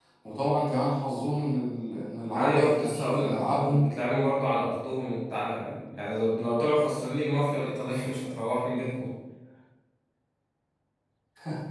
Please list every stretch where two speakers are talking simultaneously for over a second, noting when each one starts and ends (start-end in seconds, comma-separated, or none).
2.3-3.9